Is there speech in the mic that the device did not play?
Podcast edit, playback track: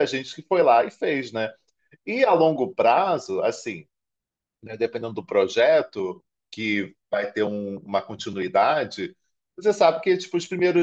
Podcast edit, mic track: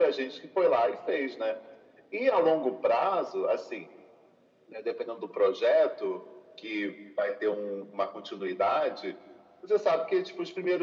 No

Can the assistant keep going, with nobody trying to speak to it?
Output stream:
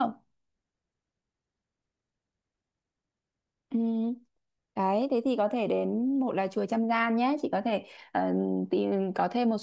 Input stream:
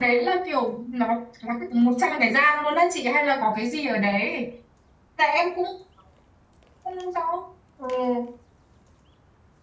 No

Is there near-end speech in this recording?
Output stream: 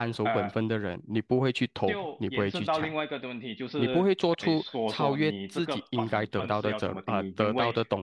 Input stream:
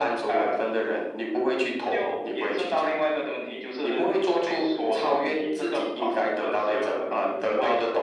No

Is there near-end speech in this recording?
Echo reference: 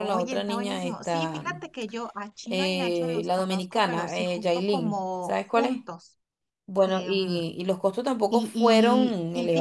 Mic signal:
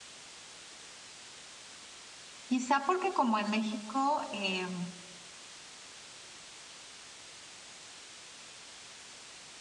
Yes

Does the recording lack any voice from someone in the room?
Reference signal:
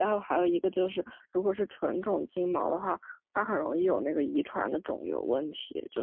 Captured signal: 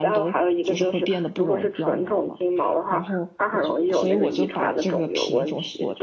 No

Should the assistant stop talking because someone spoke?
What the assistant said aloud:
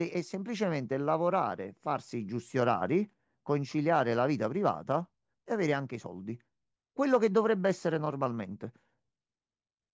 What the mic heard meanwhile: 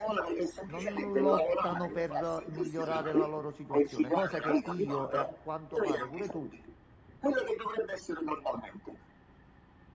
Yes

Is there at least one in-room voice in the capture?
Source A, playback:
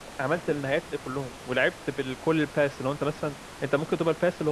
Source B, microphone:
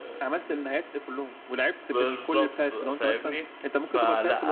Yes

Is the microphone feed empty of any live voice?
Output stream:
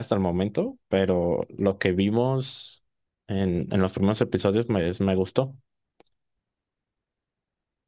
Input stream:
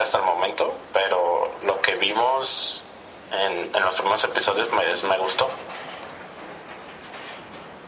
Yes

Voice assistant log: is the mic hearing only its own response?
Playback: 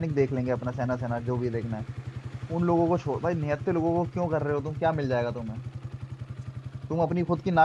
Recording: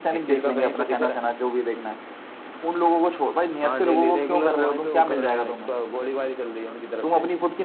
No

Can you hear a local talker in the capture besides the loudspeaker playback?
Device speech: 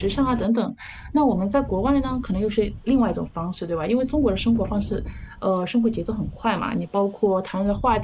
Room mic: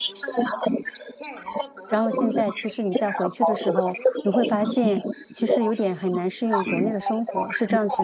Yes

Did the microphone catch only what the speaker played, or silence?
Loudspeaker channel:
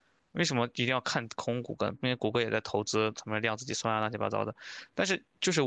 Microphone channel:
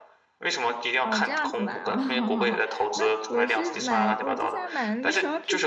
No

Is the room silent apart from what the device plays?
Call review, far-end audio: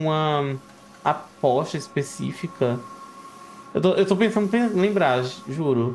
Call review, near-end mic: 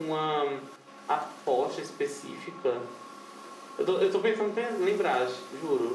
Yes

